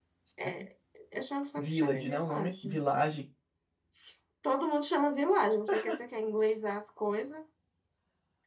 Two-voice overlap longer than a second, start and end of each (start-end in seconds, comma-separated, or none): 1.6-2.8